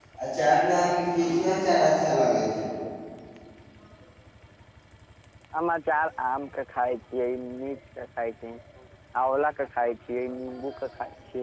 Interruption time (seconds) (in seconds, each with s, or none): none